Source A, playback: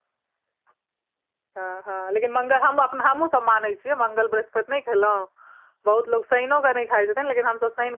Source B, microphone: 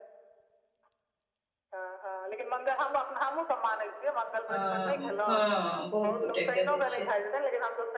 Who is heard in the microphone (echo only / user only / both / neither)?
both